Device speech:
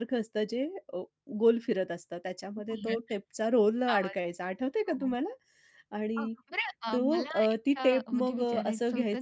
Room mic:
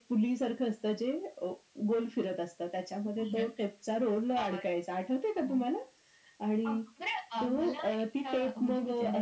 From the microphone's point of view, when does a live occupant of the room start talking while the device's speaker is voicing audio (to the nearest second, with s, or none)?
none